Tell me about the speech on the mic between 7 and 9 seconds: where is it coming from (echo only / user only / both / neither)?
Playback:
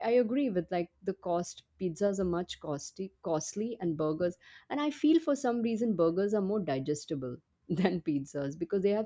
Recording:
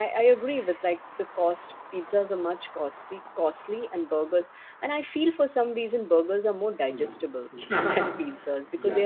both